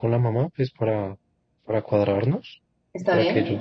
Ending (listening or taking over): listening